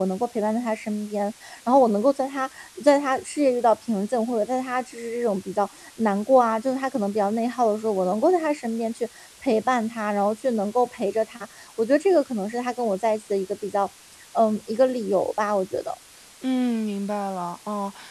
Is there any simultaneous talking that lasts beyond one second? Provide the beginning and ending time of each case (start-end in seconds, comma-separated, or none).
none